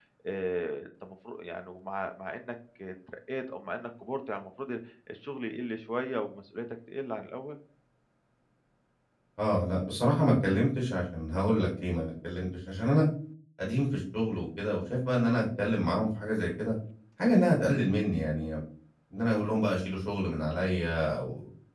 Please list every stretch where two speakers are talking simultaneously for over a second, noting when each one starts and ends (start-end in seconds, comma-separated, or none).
none